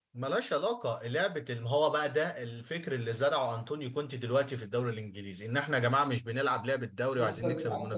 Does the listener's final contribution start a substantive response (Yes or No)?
Yes